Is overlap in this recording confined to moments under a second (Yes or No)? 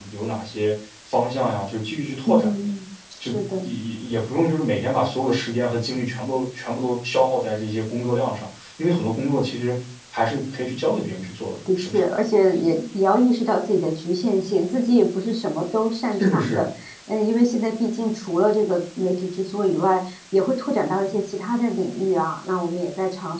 Yes